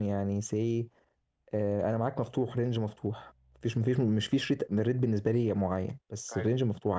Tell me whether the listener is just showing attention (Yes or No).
Yes